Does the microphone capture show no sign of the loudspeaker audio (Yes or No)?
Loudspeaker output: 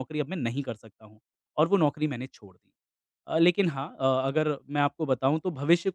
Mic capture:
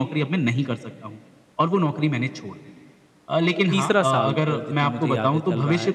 No